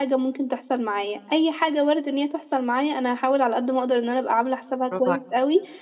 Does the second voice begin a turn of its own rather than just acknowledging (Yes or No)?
No